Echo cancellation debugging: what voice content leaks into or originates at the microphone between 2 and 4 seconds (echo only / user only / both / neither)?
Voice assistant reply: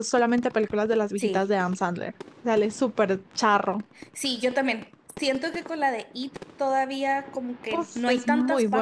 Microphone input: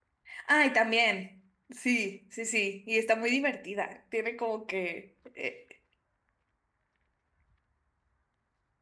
user only